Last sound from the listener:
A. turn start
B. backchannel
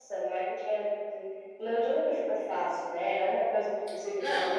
B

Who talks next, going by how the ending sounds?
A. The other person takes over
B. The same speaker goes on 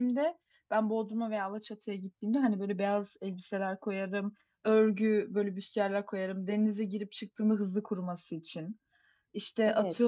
B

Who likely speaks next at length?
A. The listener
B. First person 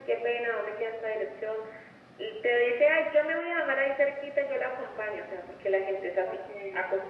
B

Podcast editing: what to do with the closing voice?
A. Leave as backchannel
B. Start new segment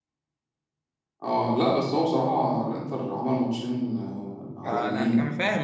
B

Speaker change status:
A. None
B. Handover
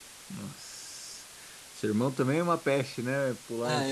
B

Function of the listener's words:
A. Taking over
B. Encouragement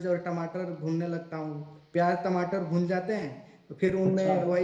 B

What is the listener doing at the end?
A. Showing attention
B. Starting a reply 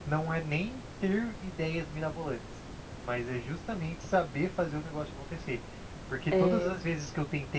A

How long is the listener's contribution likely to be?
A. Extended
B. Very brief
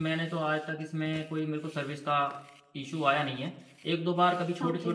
B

